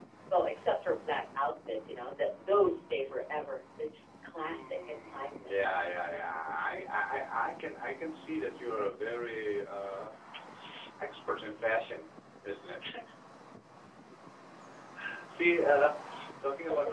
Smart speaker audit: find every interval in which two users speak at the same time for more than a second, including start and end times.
4.4-5.8

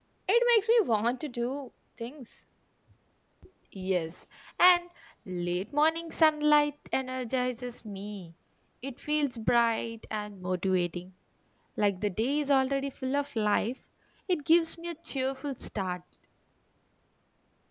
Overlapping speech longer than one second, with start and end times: none

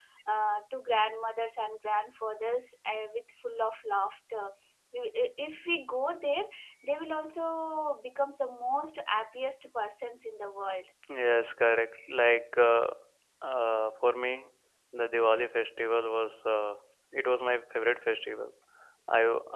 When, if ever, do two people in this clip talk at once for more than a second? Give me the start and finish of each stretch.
none

